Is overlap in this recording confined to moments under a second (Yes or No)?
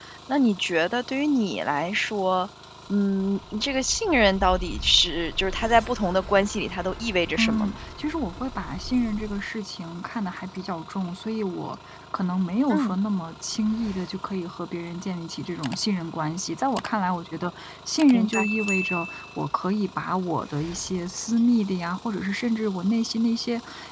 Yes